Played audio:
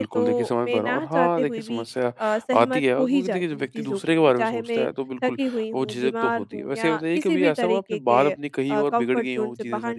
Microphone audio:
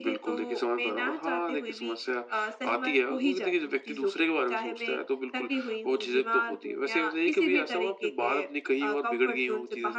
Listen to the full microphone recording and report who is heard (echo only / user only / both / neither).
echo only